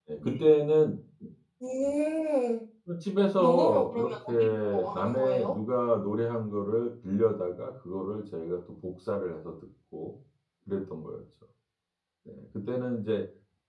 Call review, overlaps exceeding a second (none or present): present